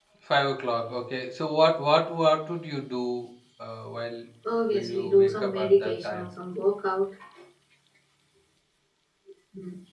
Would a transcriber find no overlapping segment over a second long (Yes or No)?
No